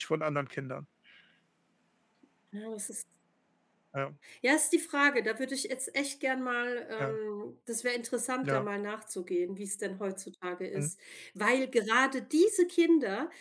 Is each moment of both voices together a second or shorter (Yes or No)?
Yes